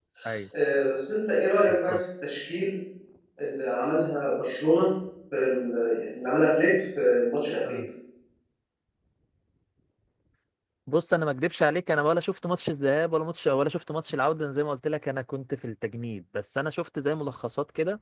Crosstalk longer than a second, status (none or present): none